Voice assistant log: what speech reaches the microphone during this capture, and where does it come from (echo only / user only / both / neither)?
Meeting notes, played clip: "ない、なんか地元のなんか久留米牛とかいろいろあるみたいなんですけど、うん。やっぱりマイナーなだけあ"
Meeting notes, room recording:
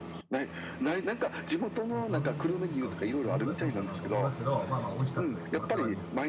both